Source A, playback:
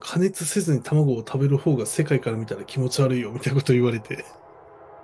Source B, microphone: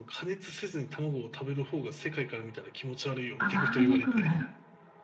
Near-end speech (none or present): present